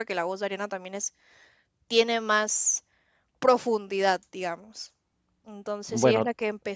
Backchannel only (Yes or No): Yes